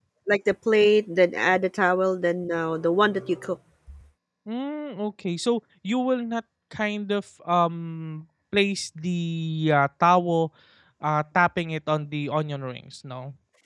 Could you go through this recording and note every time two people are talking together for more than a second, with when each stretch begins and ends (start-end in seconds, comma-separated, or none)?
none